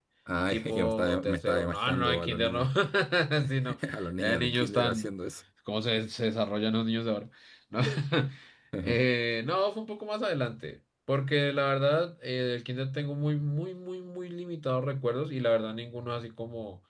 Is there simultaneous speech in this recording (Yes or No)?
Yes